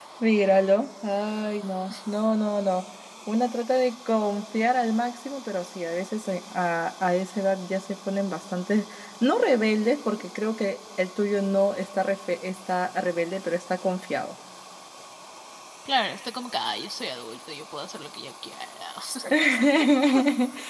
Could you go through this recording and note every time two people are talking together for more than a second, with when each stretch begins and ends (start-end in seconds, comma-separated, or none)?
none